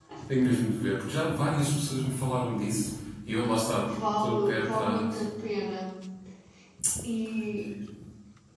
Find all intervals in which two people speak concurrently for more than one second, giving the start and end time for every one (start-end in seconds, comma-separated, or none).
3.9-5.2